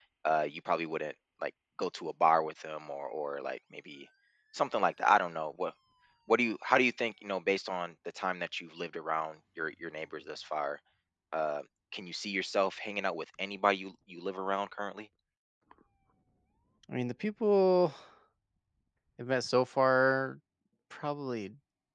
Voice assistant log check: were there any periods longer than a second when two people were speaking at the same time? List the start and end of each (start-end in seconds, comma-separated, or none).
none